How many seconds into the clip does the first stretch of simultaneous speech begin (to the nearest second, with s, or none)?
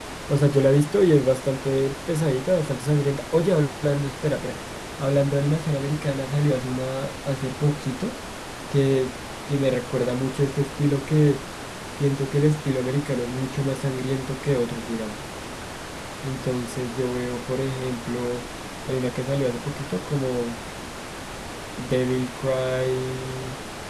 none